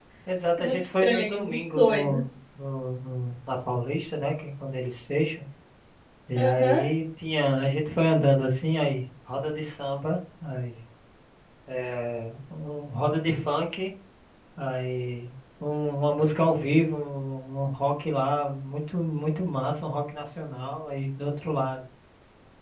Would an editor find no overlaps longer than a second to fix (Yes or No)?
No